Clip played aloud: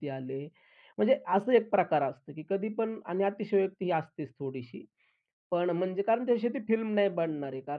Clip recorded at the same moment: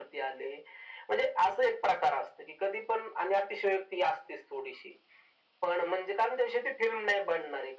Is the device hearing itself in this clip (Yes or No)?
Yes